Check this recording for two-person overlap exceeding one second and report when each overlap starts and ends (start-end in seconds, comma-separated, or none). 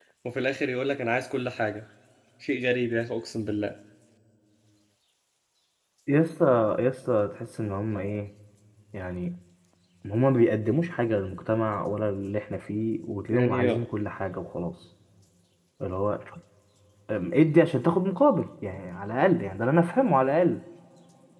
none